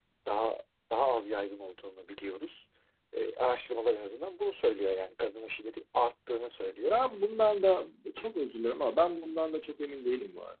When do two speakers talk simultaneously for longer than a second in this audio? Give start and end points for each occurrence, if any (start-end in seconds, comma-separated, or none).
none